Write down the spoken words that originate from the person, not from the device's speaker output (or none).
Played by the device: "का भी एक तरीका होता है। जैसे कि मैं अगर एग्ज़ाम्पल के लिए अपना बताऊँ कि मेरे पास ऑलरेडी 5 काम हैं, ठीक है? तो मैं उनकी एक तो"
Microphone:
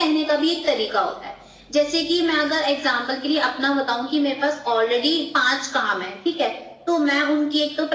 none